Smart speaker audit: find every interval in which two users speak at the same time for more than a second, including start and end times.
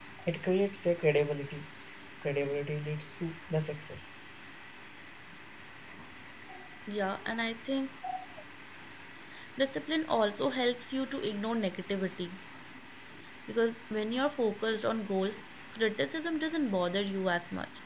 none

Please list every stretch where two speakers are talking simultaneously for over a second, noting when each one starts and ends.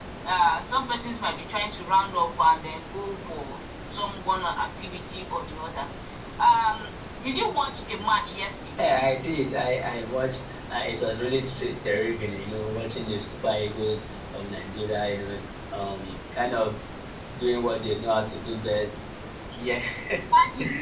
none

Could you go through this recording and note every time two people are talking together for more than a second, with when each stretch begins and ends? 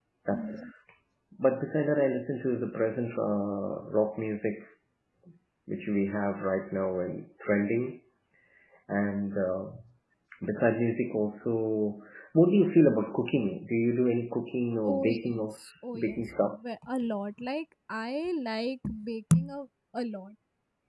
14.9-16.6

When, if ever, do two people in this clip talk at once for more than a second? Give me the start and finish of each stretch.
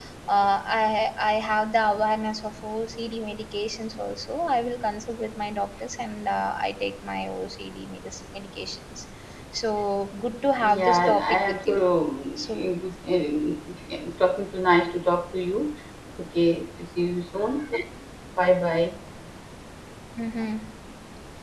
10.6-11.8

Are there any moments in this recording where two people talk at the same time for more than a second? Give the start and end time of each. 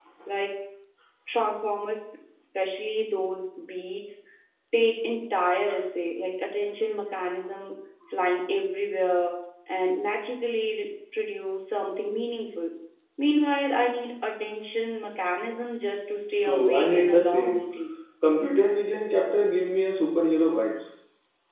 16.4-17.7

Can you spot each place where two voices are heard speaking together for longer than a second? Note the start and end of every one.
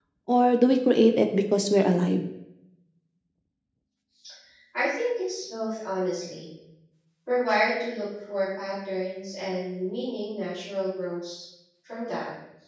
none

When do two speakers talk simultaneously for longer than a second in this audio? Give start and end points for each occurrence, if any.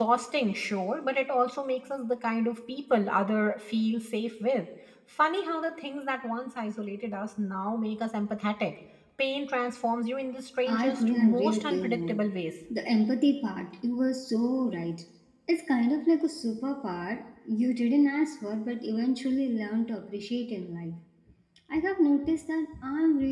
10.7-12.2

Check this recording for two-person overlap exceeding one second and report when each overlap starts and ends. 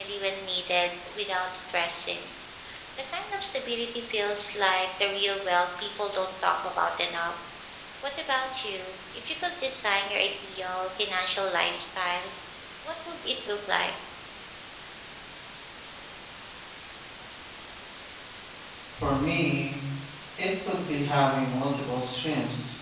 none

